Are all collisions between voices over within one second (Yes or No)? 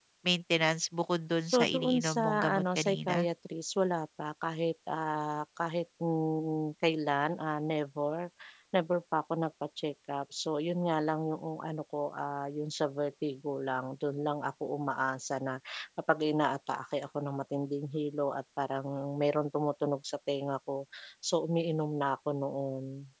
No